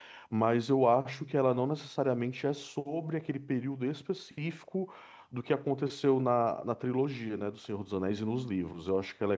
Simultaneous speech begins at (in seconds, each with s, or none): none